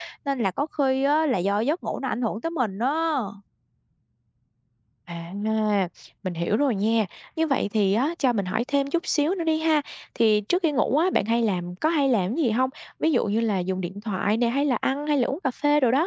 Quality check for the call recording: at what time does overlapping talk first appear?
none

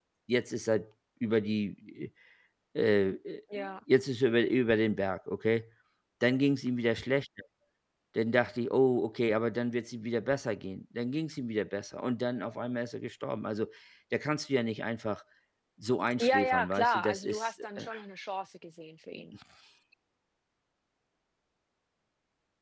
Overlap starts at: 16.2 s

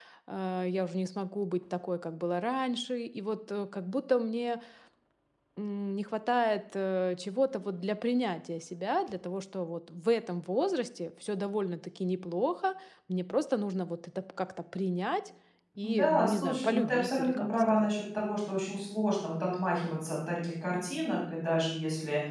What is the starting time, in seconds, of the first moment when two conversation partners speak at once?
15.8 s

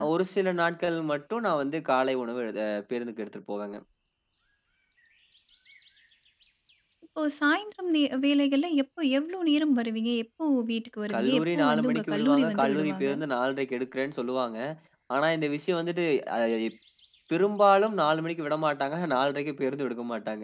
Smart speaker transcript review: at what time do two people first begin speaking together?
11.1 s

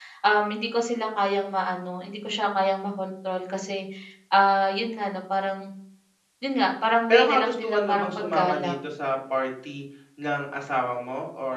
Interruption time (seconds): 7.1 s

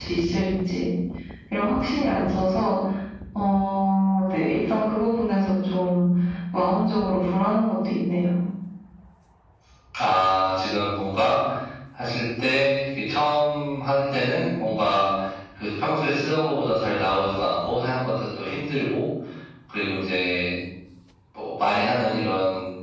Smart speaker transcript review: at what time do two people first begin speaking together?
none

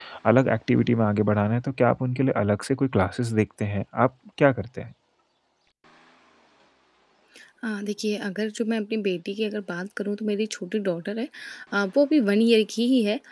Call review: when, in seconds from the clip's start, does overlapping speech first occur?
none

